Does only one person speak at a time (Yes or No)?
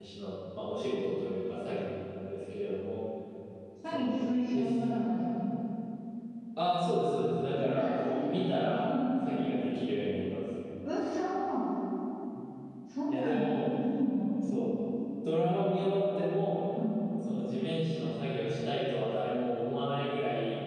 No